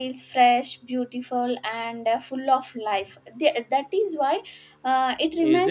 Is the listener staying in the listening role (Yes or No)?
Yes